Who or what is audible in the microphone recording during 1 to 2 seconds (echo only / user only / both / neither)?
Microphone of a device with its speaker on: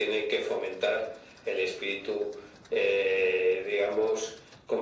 echo only